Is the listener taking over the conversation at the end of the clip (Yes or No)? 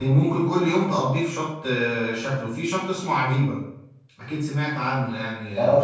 Yes